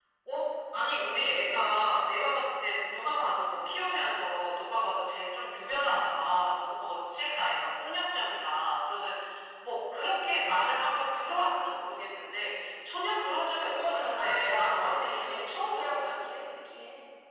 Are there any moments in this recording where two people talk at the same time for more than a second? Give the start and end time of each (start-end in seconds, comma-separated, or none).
13.7-16.2